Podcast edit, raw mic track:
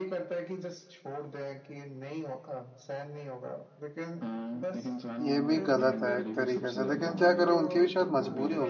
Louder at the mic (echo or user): user